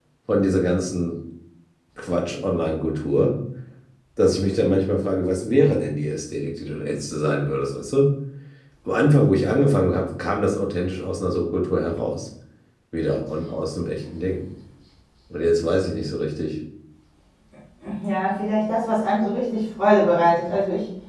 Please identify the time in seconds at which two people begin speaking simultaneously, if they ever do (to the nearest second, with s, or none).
none